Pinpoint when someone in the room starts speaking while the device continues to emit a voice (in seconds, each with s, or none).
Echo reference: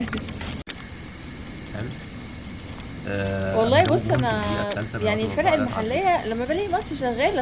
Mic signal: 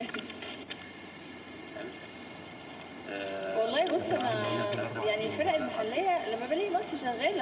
4.0 s